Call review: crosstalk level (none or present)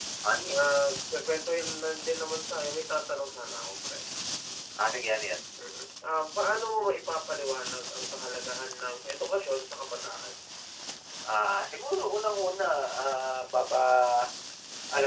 none